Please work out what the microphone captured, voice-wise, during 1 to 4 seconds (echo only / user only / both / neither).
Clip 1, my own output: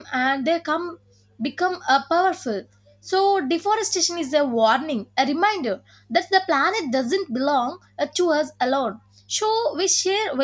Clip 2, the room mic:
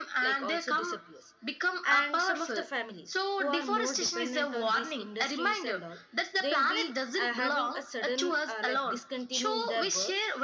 both